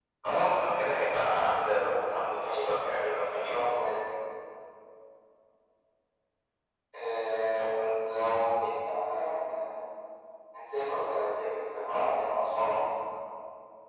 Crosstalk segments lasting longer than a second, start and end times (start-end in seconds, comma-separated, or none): 2.3-3.7